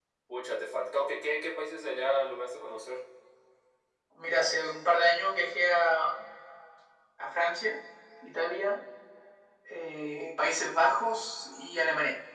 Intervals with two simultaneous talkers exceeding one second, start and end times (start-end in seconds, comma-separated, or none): none